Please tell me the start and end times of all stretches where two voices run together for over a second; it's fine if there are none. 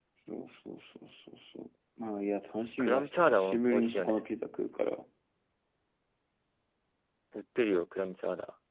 2.8-4.2

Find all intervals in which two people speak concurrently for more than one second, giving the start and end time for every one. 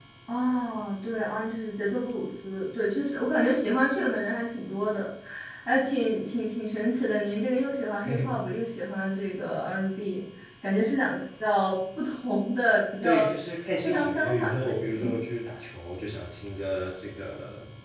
13.8-15.2

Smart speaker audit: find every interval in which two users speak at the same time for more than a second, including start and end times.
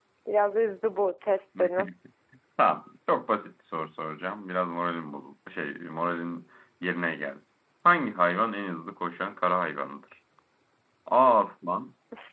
none

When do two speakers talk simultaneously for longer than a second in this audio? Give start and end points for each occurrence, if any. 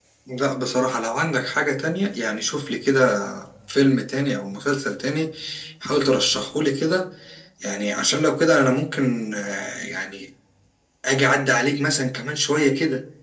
none

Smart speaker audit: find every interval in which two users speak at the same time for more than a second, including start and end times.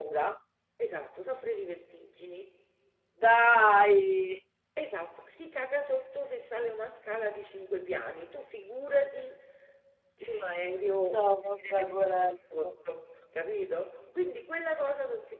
11.1-12.7

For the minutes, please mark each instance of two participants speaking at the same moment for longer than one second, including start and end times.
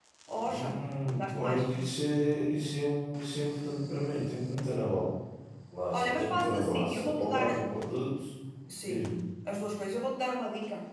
5.9-7.6

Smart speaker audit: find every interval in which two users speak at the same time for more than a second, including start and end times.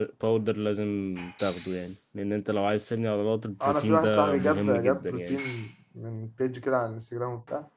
3.6-5.4

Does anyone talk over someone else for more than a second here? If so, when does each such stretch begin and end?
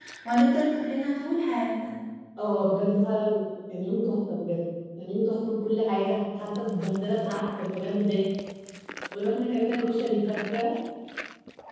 none

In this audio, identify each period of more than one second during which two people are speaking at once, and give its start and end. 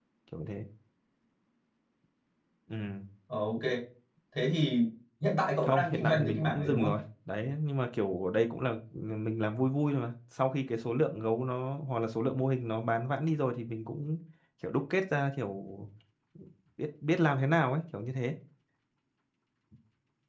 5.6-6.9

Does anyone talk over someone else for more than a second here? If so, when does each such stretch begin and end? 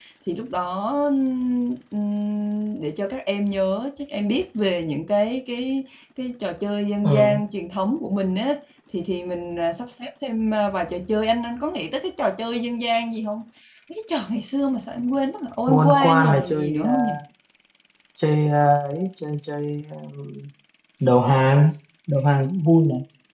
15.7-16.9

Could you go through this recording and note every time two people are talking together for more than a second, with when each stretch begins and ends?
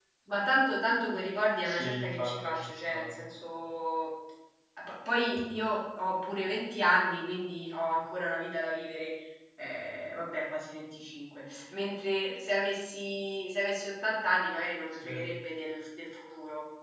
1.6-3.1

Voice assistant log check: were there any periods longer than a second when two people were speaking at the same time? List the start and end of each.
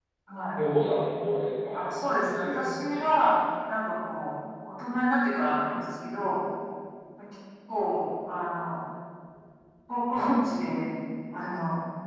1.7-3.0

